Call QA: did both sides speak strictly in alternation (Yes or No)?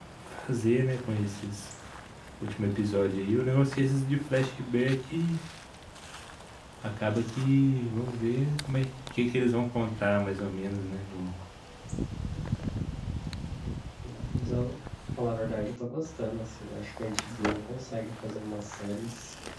Yes